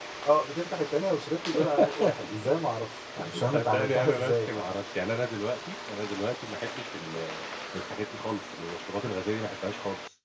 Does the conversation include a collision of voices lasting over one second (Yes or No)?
Yes